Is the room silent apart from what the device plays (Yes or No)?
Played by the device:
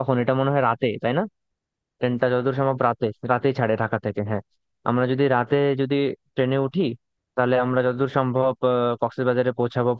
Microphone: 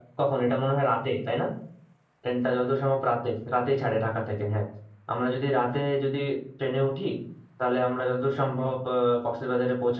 Yes